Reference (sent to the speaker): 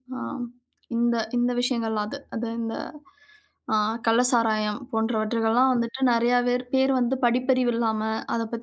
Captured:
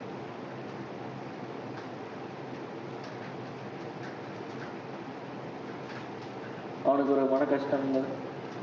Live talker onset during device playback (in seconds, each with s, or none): 6.9 s